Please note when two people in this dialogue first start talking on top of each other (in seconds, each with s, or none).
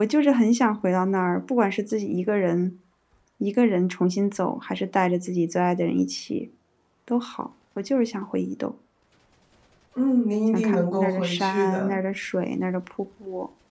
10.5 s